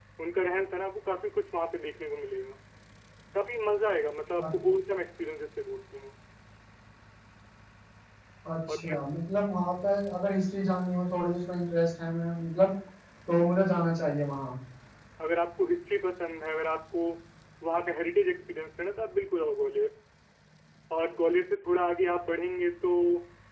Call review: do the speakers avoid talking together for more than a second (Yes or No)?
Yes